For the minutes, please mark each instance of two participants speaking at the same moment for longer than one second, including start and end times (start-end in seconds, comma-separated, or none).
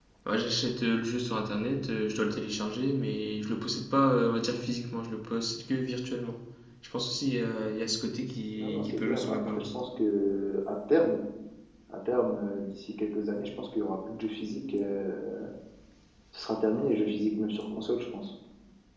8.6-9.8